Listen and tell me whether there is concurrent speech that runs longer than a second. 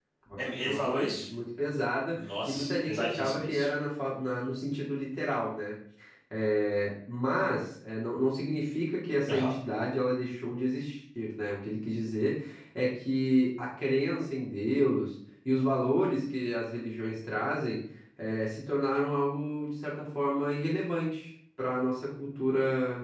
Yes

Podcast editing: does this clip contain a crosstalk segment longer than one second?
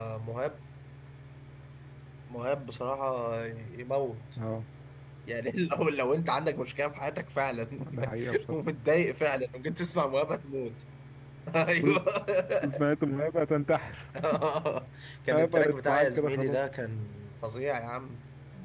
Yes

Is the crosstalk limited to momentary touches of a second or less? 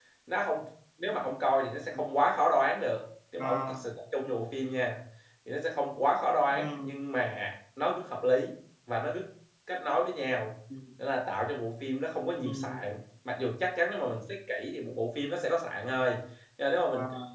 Yes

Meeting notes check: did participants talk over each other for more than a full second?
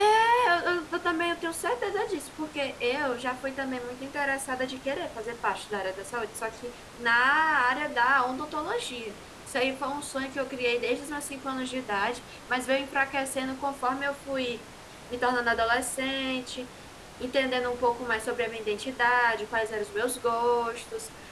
No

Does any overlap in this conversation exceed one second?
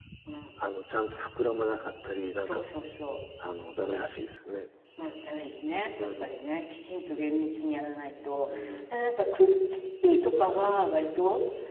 No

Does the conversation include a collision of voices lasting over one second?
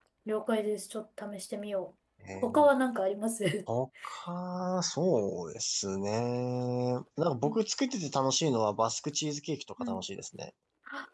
No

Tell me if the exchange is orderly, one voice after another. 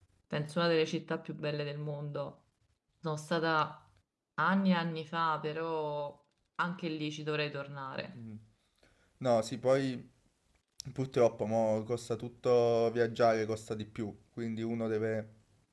Yes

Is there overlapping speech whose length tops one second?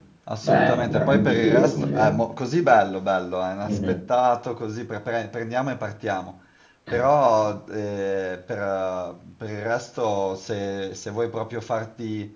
Yes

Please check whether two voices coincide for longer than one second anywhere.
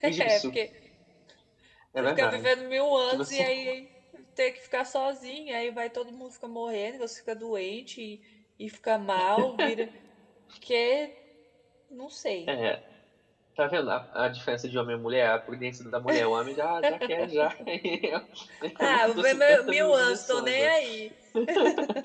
Yes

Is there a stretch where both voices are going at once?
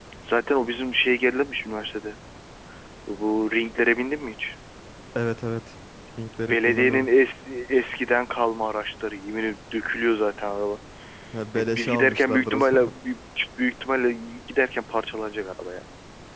Yes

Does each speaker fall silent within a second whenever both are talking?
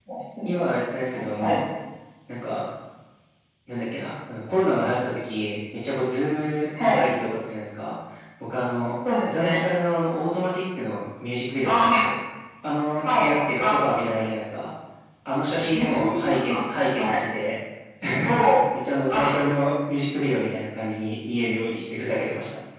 No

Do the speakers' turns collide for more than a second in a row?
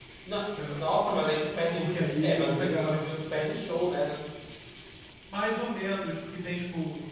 Yes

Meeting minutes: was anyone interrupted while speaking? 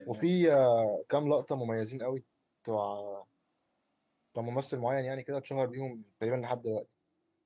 No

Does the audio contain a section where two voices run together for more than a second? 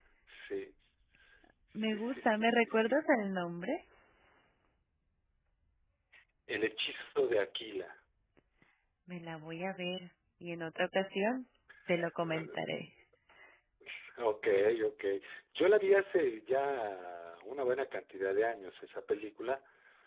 Yes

